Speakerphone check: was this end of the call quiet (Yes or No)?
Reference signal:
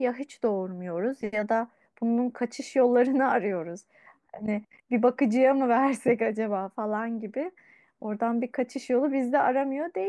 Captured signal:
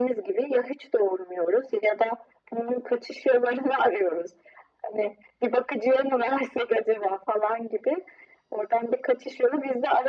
Yes